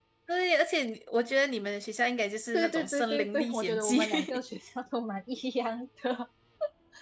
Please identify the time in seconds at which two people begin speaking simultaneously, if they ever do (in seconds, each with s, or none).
2.5 s